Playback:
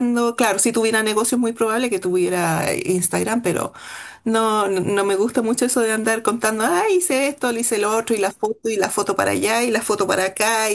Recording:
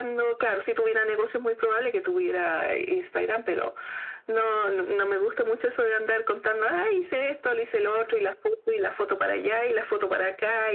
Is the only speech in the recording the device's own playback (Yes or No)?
Yes